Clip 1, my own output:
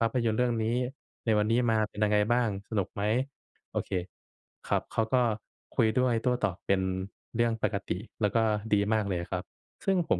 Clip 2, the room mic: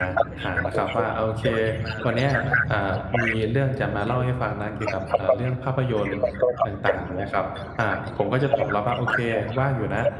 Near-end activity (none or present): present